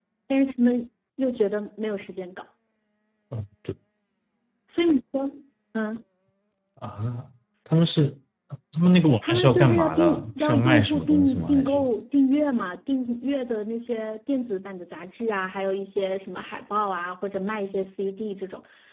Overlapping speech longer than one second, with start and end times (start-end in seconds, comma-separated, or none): 9.3-11.8